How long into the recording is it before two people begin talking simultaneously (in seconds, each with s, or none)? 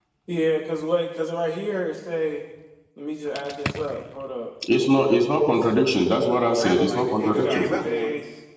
6.6 s